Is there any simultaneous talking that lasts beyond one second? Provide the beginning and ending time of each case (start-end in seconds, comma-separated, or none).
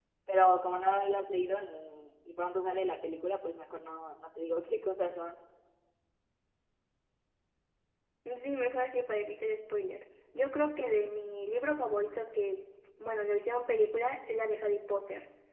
none